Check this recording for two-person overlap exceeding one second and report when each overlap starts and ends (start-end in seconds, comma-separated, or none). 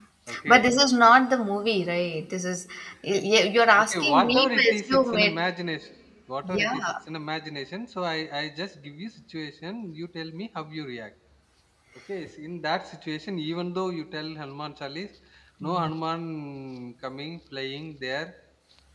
3.8-5.3